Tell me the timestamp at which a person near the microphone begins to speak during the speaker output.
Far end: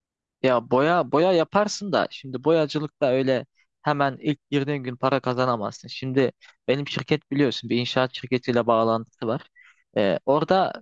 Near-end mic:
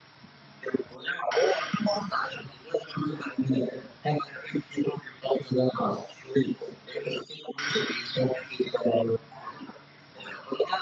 none

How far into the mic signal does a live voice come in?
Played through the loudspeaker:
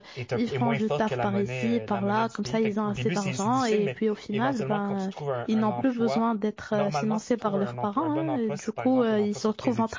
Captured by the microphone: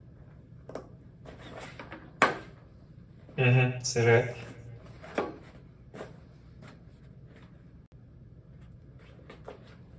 3 s

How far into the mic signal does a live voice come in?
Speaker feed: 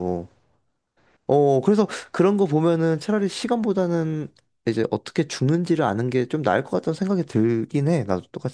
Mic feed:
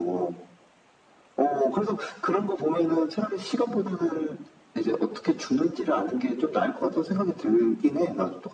none

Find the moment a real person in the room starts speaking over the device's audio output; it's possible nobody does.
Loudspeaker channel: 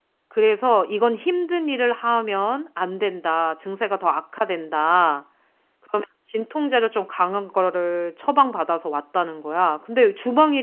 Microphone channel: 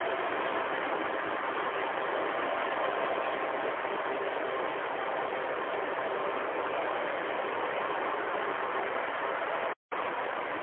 none

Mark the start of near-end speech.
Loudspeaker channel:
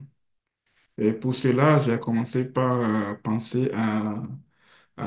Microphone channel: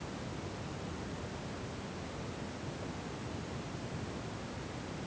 none

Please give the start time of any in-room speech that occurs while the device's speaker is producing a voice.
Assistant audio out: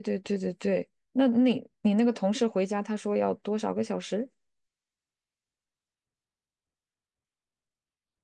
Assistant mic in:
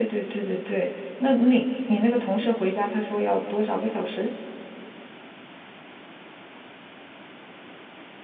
none

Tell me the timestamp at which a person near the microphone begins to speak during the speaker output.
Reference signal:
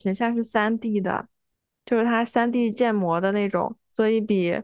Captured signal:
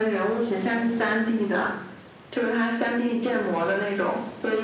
none

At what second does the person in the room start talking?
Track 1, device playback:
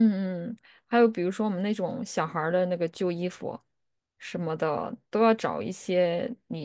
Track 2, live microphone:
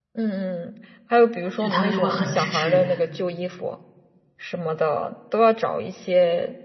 2 s

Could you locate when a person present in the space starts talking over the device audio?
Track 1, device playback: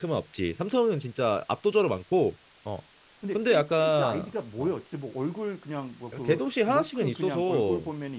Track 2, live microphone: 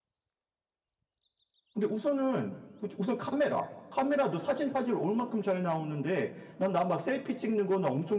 2 s

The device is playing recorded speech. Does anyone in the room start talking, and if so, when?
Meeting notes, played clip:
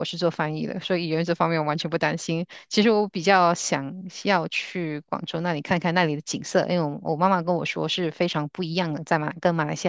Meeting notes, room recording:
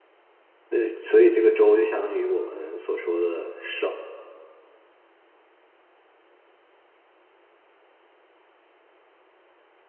1 s

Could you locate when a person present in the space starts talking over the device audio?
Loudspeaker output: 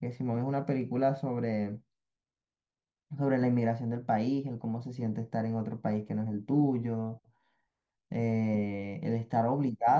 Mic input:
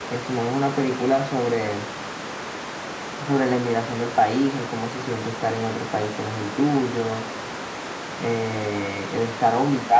none

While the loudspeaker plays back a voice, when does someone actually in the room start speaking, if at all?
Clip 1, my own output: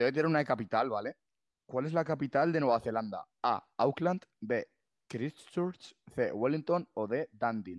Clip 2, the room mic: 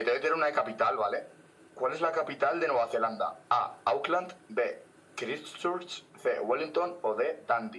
none

